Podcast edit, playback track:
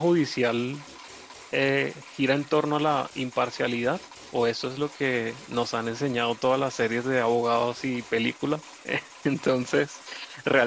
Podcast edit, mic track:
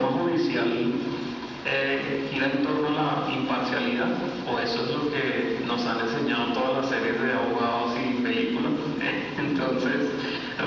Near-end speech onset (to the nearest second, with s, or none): none